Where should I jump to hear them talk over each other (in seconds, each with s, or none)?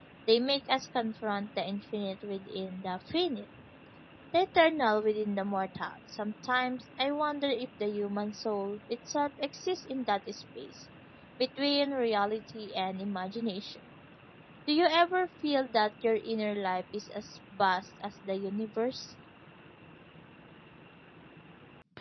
none